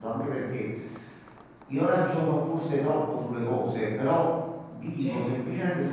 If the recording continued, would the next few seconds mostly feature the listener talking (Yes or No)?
No